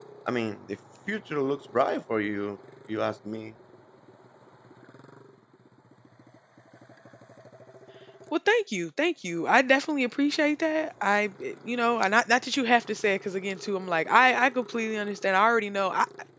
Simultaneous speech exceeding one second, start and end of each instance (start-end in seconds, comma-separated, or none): none